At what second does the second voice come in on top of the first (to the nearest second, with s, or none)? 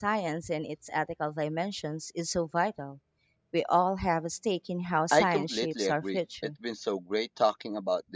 5 s